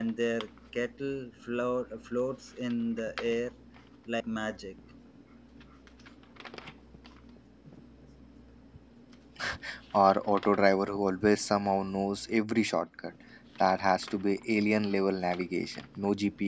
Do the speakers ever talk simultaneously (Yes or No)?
No